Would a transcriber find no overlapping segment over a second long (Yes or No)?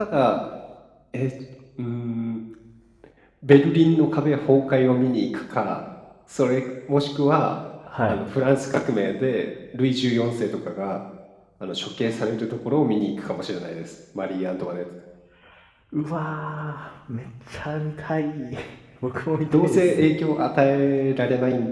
Yes